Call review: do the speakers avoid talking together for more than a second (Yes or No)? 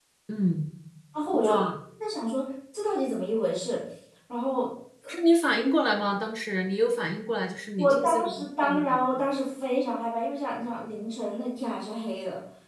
No